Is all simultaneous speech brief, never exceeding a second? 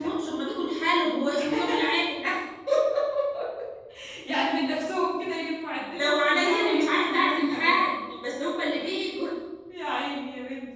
No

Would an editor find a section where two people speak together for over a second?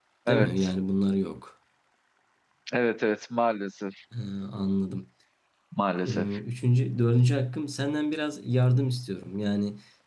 No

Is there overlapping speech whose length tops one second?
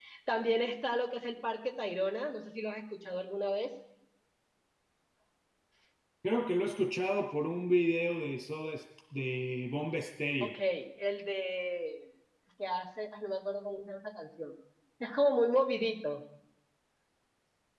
No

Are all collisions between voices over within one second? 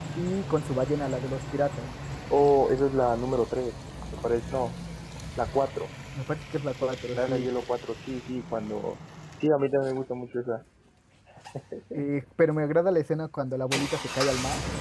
Yes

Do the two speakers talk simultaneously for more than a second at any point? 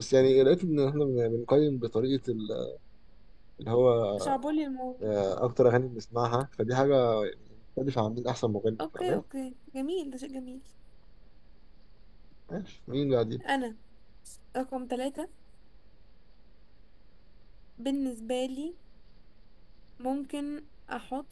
No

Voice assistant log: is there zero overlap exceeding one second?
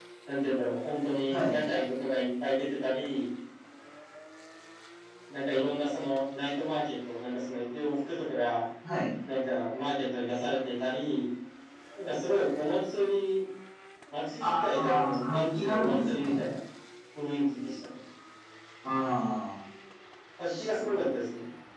No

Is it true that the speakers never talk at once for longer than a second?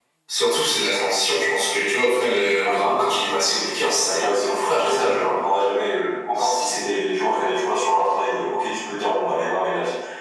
No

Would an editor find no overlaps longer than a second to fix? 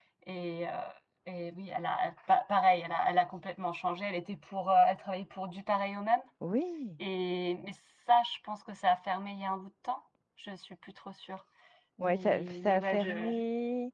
No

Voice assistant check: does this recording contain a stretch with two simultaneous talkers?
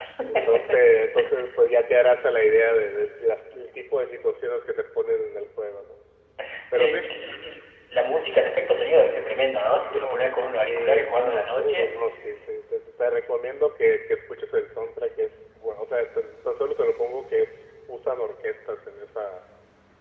Yes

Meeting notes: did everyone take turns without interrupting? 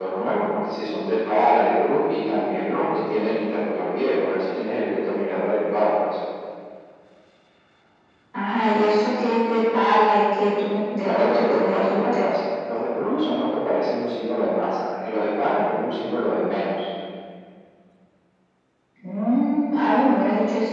No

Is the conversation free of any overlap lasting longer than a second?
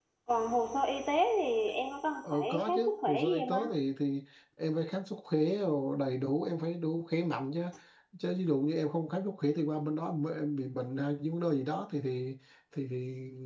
No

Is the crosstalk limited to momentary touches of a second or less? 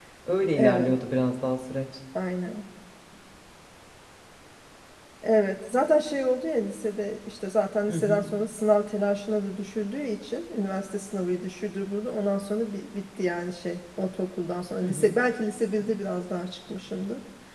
Yes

